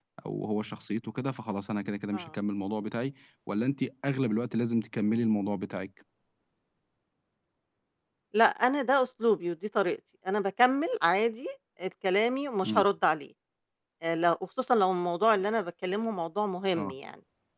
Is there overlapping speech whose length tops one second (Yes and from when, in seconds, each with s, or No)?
No